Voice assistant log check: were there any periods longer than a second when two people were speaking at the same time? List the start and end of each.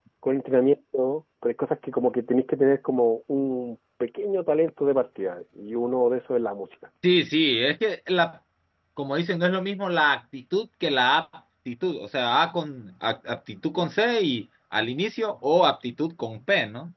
none

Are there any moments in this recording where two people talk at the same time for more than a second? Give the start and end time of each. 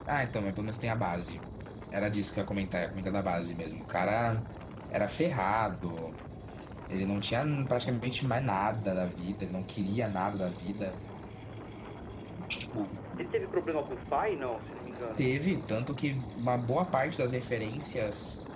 none

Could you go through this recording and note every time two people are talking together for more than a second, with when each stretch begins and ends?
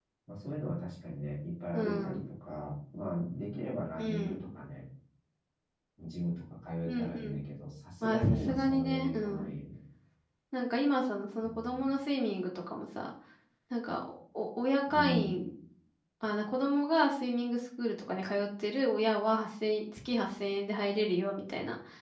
8.0-9.5

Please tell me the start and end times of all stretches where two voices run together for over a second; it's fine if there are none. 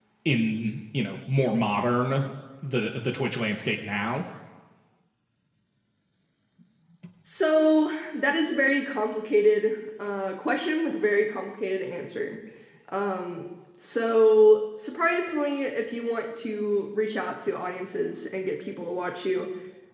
none

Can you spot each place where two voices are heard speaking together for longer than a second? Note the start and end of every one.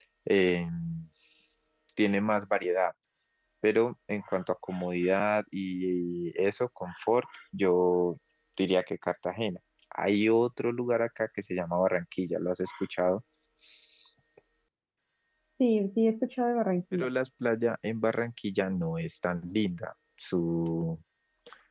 none

